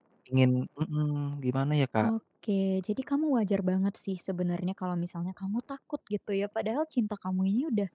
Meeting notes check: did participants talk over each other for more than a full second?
No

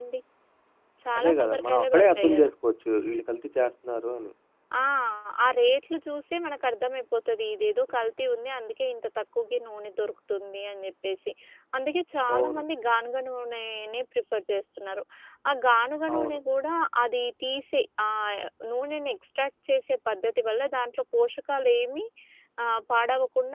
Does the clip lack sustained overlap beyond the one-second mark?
No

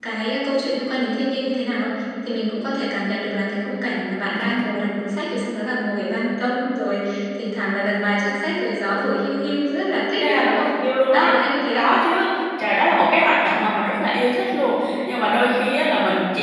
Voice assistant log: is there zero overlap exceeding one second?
Yes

